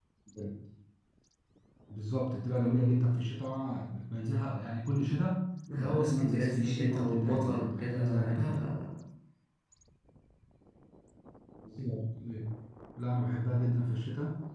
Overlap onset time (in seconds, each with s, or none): 5.7 s